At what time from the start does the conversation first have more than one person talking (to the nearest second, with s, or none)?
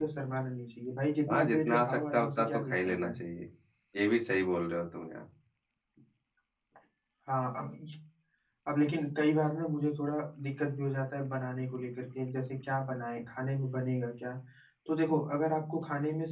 1 s